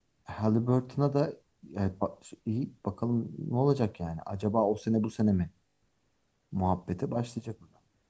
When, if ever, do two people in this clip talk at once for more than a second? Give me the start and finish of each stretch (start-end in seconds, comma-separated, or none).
none